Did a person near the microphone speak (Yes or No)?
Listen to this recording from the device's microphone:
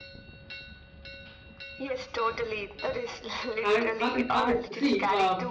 Yes